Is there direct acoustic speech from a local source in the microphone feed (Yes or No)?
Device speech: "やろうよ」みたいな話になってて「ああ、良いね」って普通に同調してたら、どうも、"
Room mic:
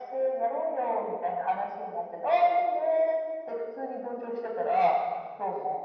No